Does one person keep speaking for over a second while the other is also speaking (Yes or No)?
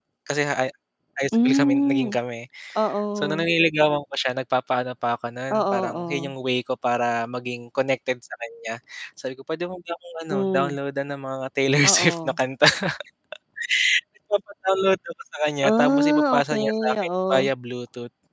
Yes